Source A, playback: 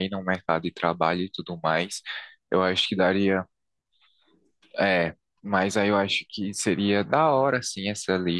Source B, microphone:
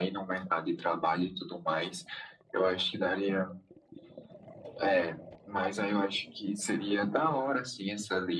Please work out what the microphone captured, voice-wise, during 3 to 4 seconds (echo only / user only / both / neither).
echo only